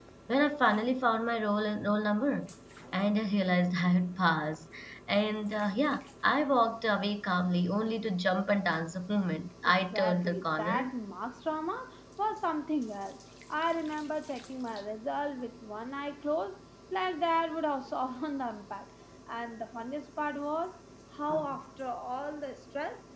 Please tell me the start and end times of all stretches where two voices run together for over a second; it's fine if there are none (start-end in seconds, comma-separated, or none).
9.6-10.9